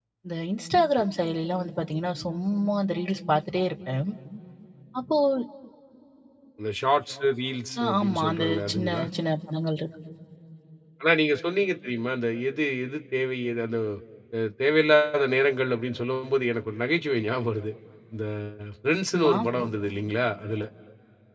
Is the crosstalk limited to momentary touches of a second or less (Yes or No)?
No